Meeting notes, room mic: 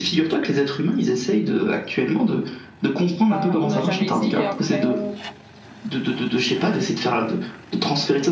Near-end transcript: Bah, on n'a jamais essayé après. euh.

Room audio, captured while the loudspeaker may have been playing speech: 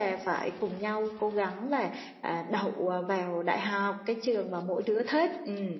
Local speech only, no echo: none

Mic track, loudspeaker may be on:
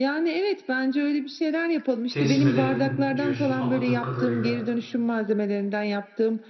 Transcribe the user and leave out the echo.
teslim edelim diyorsun anladığım kadarıyla.

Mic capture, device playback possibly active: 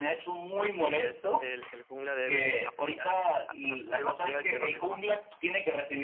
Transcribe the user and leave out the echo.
Así es, el, el jungla debe apoyar, a- a- debe apoyar al que va mejor.

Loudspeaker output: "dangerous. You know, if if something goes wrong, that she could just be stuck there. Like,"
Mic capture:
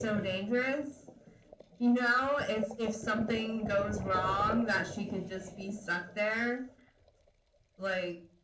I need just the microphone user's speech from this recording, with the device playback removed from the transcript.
none

